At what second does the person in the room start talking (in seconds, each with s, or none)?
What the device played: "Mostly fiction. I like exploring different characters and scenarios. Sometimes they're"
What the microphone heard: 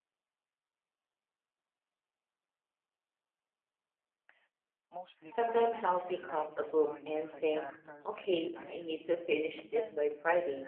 5.3 s